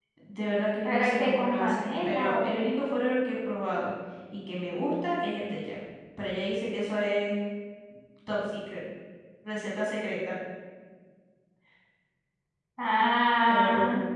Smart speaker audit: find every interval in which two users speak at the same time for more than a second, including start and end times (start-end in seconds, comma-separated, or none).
0.8-2.6